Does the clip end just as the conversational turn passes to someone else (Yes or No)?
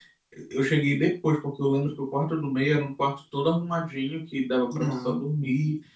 No